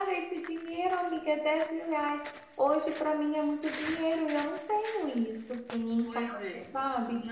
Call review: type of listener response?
taking over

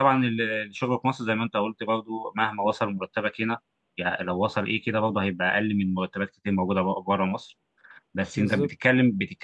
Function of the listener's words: listening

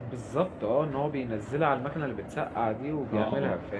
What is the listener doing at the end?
taking over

